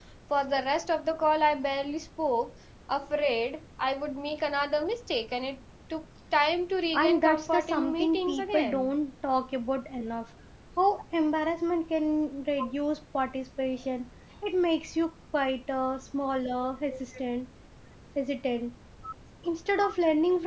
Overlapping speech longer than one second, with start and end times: 6.9-8.9

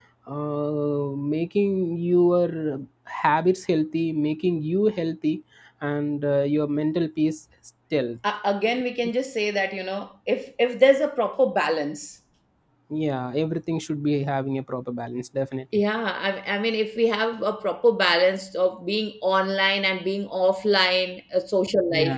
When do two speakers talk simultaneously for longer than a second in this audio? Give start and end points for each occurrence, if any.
none

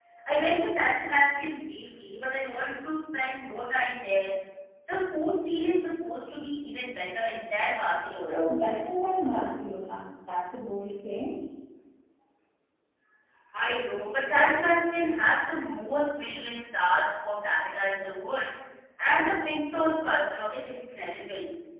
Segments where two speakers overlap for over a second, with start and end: none

